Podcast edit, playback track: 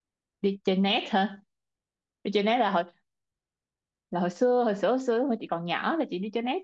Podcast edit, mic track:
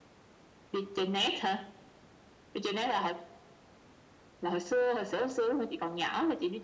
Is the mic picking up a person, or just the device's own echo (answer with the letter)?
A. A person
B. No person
B